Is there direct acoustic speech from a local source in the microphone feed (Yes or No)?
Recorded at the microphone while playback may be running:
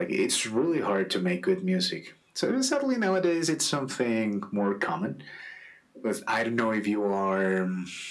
No